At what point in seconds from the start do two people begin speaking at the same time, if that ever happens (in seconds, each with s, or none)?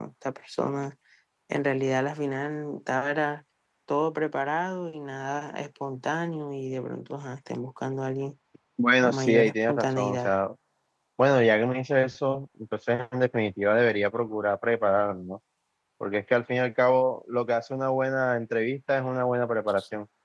9.0 s